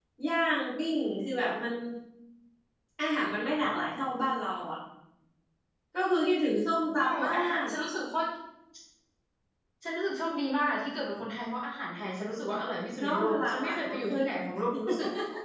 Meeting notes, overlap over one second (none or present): present